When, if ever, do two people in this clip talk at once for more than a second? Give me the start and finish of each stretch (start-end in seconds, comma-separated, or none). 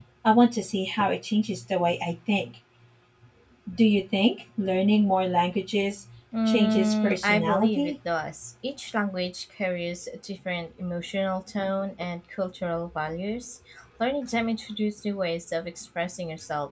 6.5-7.9